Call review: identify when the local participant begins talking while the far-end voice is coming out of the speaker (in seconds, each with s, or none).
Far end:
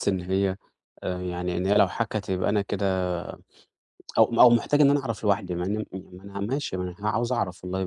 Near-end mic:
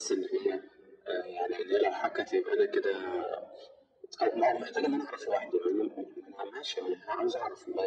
none